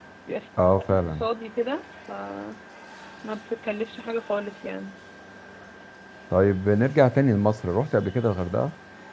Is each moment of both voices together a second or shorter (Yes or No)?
Yes